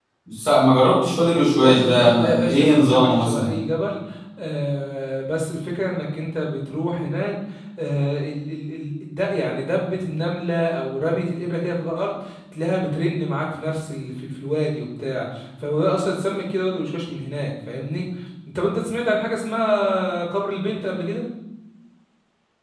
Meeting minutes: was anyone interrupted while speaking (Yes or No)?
Yes